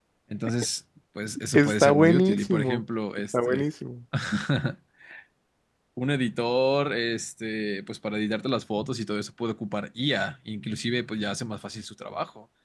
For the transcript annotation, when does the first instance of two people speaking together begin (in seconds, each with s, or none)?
1.5 s